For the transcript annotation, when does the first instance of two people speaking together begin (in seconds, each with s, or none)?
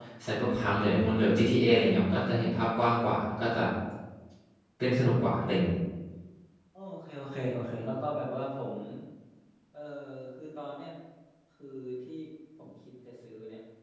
none